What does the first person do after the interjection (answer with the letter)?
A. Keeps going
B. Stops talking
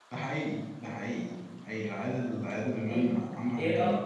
B